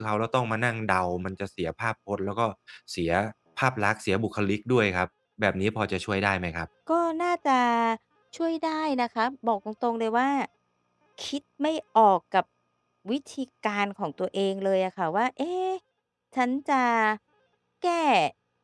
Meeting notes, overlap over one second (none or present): none